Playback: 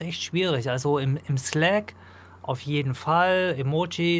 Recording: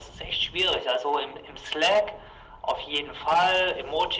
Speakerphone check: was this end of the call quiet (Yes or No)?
Yes